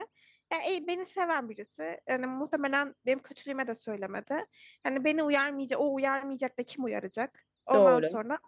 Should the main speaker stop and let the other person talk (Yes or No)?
No